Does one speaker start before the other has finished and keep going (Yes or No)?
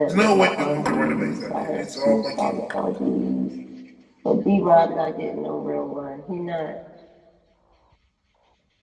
Yes